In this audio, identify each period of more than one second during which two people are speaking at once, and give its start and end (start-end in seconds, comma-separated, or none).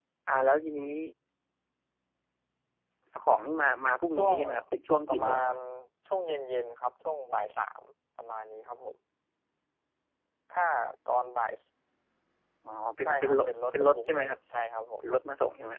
13.0-14.4